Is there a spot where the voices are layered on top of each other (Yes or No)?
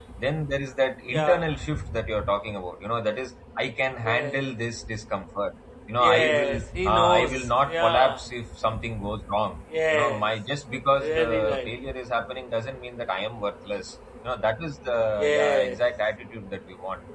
Yes